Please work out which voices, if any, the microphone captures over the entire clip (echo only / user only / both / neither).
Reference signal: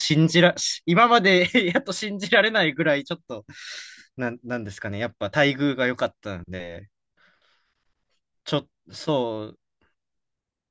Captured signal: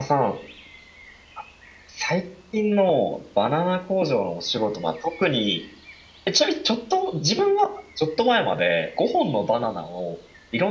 user only